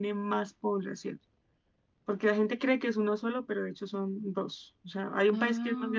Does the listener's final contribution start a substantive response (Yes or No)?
No